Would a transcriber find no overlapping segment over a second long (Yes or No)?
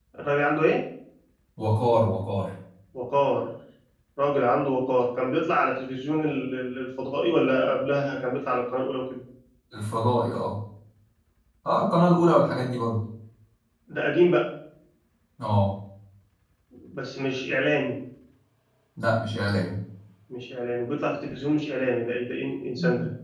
Yes